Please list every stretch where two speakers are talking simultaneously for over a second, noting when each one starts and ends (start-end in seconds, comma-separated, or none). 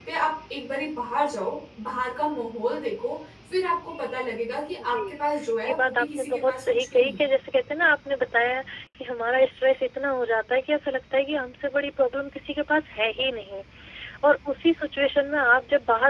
5.6-7.2